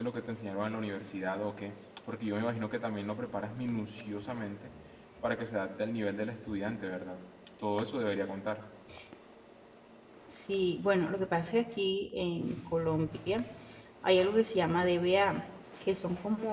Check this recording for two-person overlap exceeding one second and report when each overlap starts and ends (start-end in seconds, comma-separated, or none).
none